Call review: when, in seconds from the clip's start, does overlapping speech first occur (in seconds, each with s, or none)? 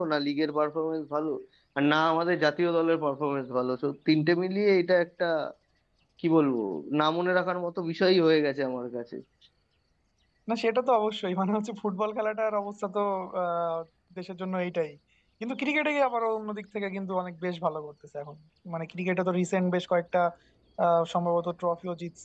none